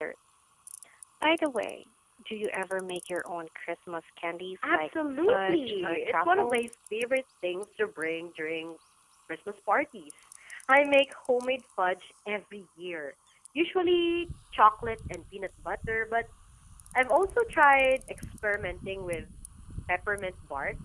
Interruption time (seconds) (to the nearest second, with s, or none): 5 s